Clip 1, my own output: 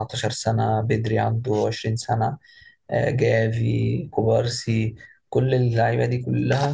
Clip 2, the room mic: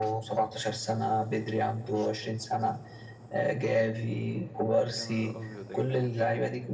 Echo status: present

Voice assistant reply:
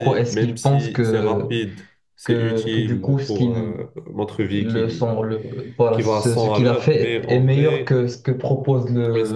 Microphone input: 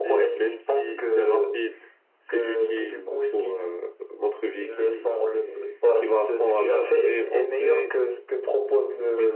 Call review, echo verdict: present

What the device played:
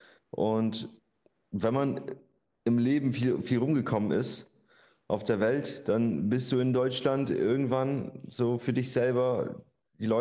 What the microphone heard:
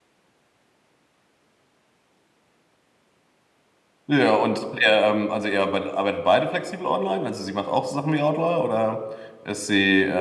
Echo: none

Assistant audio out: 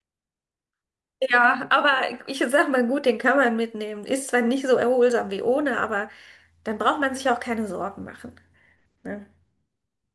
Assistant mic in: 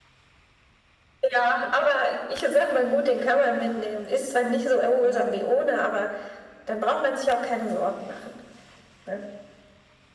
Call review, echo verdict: present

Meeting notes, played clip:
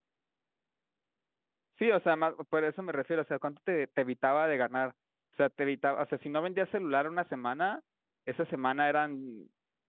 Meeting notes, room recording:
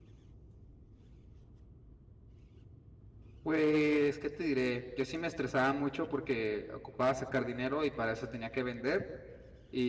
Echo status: none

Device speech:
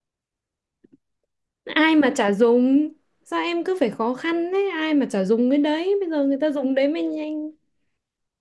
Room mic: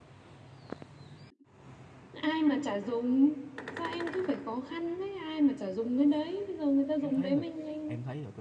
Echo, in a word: present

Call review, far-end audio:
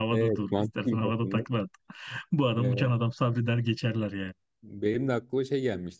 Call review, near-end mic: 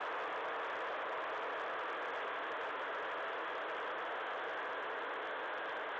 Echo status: none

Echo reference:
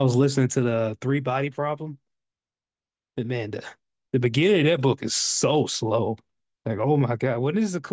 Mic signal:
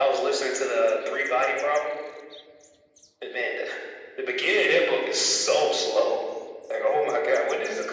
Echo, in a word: present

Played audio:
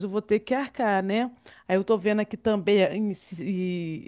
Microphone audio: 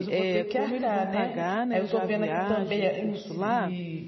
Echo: present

